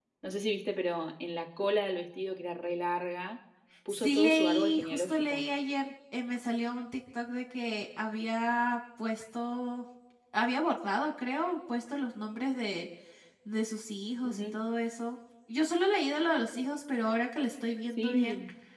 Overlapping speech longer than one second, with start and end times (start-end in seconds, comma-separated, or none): 3.9-5.4